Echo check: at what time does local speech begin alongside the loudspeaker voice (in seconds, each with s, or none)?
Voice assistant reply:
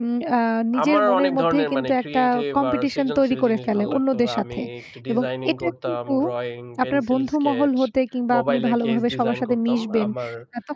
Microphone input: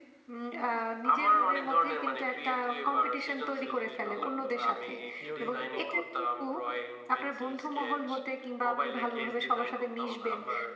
5.1 s